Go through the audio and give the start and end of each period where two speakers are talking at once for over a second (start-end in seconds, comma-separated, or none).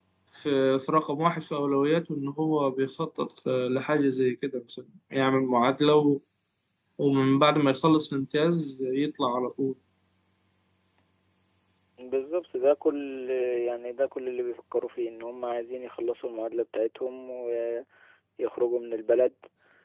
none